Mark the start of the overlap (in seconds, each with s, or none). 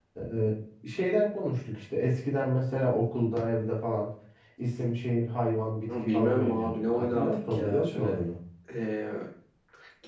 5.9 s